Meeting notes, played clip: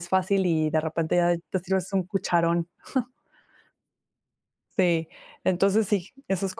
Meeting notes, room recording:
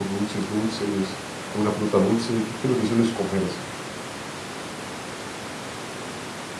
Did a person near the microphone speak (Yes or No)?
Yes